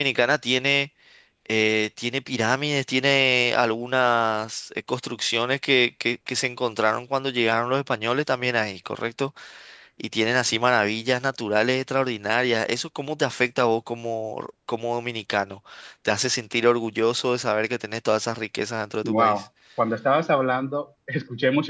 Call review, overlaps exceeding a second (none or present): none